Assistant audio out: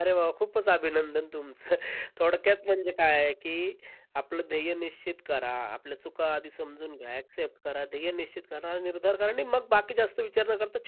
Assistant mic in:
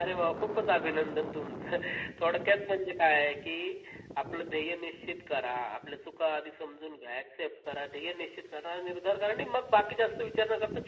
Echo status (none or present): present